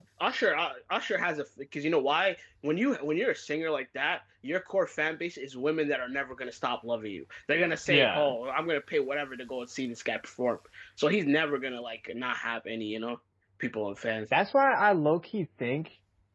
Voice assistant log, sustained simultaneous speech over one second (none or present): none